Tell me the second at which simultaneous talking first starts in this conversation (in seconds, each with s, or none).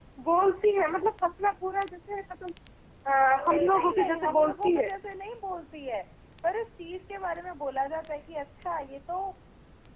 3.3 s